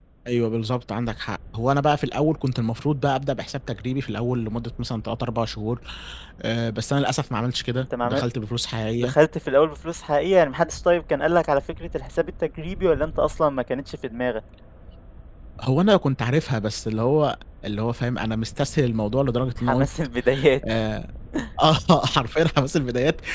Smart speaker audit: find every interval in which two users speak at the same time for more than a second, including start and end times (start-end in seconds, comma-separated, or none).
none